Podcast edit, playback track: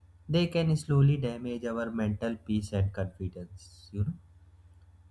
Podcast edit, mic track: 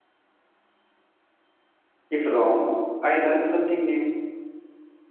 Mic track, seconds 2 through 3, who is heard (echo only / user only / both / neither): user only